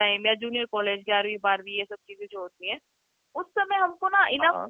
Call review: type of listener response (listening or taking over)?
listening